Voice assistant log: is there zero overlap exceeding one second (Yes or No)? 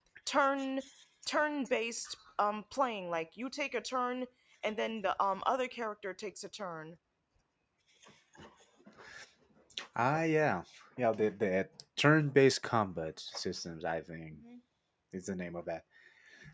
Yes